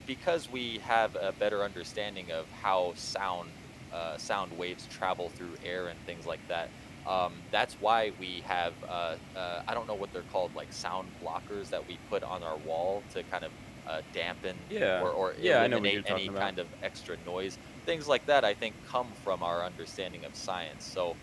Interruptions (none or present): present